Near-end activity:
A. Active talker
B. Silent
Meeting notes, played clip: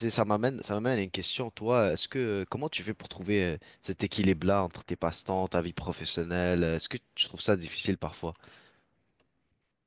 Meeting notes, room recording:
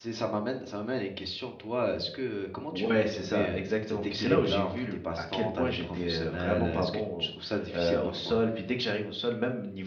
A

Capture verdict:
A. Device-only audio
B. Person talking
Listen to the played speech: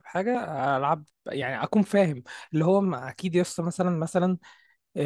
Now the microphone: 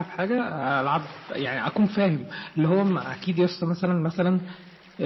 A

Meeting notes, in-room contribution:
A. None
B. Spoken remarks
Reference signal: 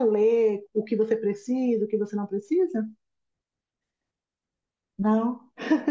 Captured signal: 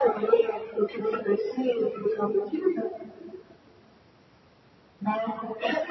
A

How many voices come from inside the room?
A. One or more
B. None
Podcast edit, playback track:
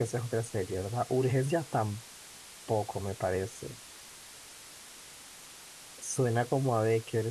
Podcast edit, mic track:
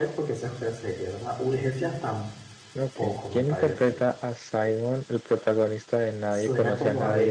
A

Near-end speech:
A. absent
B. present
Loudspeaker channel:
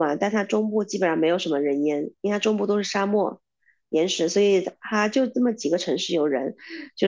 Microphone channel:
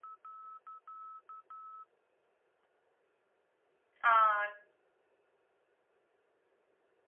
B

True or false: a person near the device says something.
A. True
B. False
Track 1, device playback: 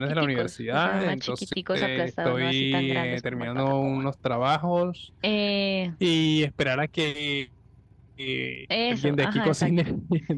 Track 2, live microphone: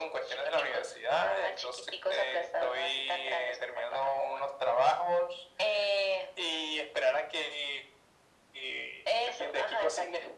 B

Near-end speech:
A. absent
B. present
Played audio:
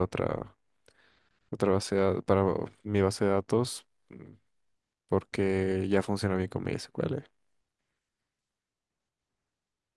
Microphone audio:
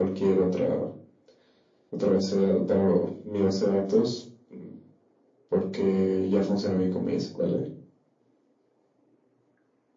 A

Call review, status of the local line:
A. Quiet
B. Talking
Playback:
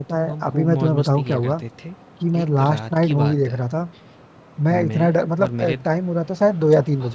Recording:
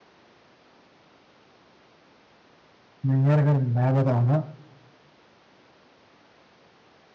B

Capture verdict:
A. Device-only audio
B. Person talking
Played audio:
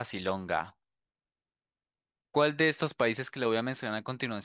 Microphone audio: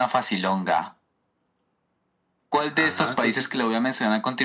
B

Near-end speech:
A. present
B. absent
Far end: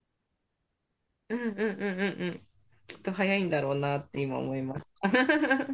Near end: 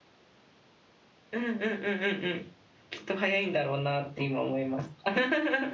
B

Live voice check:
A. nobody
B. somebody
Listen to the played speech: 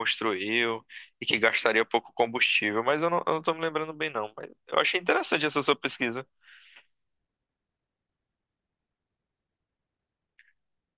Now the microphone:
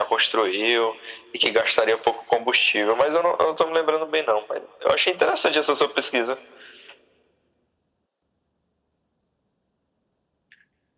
A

